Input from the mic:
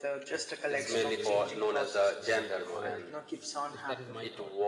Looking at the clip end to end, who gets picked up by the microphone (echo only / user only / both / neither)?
both